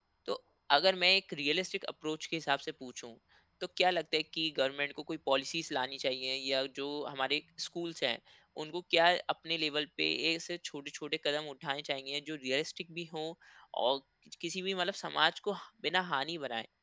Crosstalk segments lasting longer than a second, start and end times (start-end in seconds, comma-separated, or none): none